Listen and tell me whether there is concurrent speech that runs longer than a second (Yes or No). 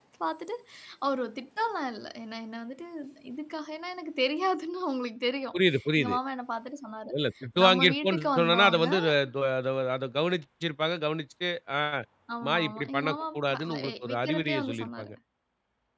Yes